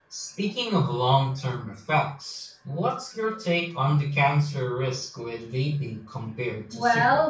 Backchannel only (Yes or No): No